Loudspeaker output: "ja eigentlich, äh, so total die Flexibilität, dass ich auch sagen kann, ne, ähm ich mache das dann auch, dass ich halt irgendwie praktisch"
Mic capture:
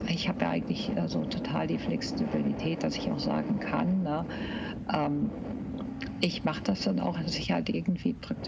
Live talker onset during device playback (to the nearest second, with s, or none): none